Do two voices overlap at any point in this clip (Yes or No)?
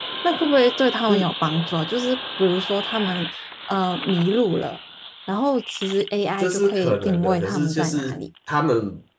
Yes